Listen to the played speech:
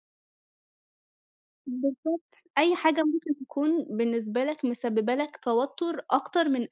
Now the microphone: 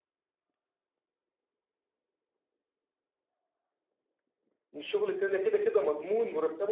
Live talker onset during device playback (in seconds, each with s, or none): 4.7 s